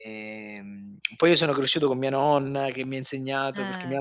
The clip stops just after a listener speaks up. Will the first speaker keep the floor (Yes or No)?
Yes